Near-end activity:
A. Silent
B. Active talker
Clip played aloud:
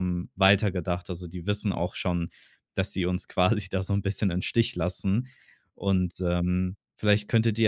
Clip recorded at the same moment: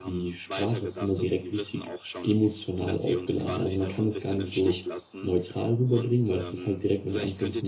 B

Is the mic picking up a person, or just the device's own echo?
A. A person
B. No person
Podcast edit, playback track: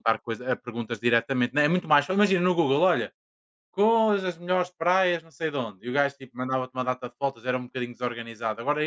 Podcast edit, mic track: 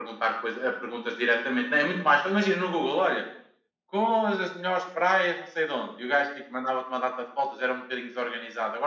B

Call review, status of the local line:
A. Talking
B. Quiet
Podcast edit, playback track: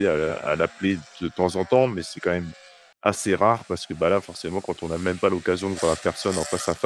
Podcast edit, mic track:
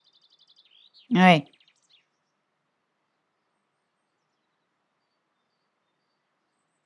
A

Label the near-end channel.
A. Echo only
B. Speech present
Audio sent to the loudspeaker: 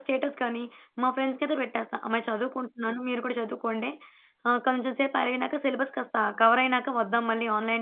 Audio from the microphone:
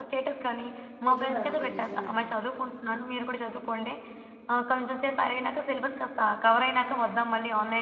B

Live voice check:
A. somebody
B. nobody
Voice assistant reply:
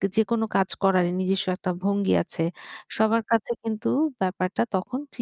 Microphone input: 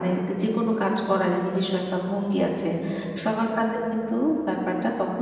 B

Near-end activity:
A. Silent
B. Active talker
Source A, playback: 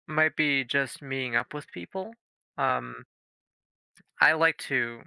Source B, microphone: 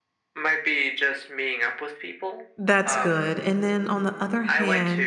B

